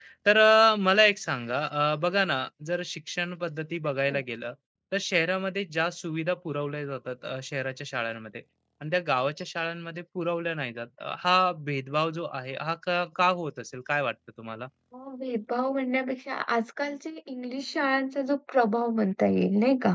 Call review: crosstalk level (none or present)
none